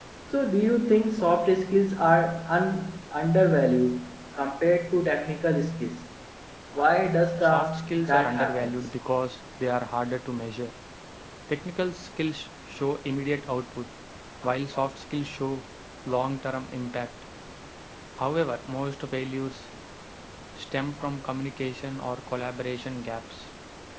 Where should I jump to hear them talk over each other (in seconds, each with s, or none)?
7.4 s